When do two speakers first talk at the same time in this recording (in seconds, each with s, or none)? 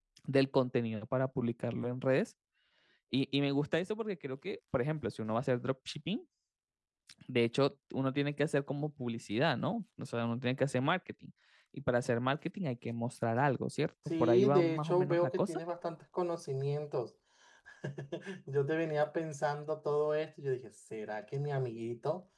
14.1 s